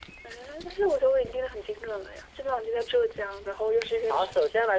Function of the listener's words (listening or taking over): taking over